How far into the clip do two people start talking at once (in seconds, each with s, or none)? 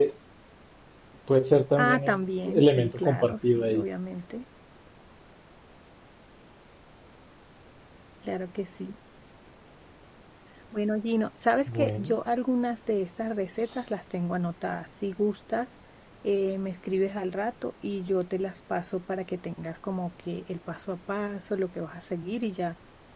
1.8 s